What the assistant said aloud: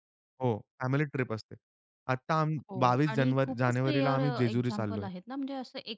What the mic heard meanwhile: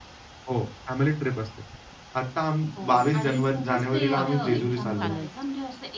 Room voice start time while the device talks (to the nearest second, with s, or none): 4 s